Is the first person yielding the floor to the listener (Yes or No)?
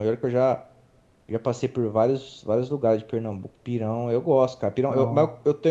No